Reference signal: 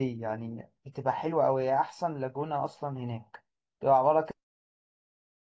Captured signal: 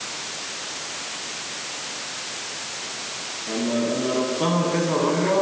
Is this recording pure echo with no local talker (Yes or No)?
No